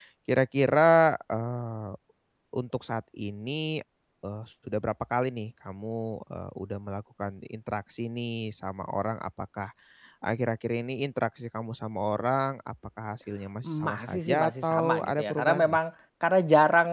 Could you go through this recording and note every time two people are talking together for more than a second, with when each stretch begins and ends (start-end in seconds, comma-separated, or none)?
13.6-15.8